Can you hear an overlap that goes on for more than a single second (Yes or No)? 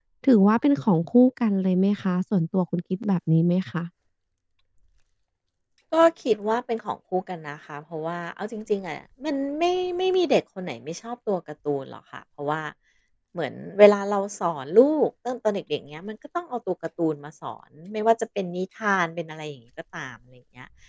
No